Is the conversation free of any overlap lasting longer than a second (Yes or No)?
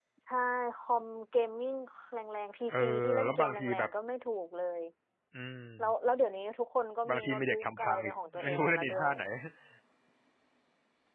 No